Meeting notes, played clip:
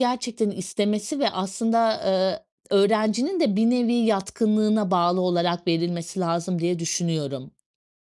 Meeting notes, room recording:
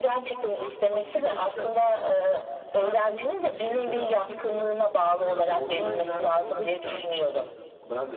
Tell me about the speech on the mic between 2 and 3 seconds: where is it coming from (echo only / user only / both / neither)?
both